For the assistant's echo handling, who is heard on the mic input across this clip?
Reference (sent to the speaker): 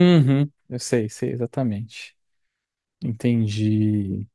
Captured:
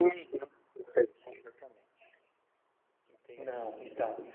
both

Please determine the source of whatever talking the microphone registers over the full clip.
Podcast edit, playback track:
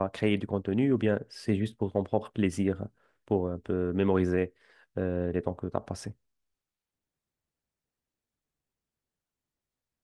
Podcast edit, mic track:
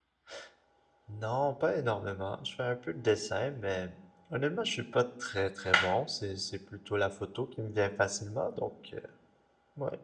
user only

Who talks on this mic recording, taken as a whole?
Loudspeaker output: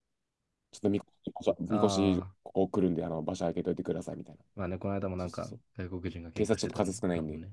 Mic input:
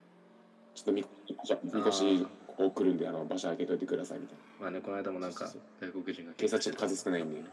echo only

